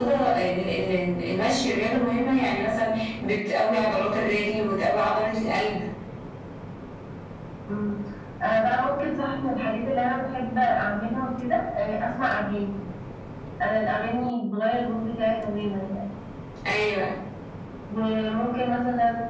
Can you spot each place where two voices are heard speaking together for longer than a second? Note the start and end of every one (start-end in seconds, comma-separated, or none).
none